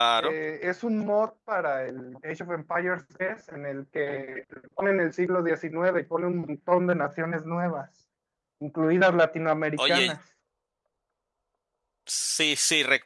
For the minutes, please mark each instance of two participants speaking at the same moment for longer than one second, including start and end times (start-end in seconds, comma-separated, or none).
none